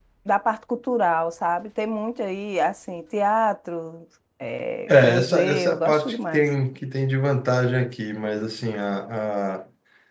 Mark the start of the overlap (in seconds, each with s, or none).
4.9 s